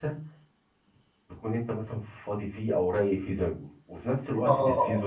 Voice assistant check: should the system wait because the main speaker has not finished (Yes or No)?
Yes